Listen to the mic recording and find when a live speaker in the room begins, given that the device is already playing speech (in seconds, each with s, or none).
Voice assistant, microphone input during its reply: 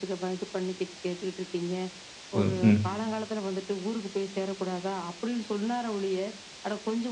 2.3 s